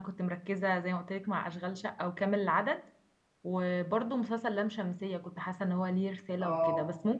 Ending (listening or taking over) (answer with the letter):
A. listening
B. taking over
A